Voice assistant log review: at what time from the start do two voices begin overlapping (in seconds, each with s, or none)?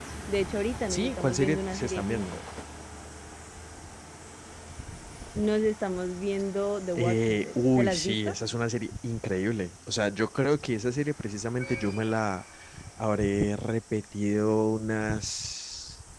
0.9 s